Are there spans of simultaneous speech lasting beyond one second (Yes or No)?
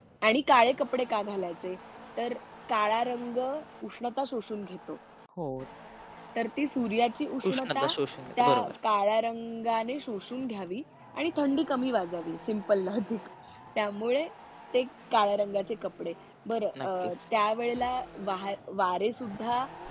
No